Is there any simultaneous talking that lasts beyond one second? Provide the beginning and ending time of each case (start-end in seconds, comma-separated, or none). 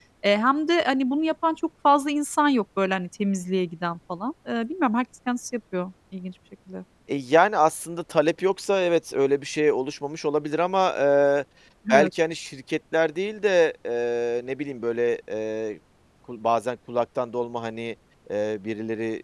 none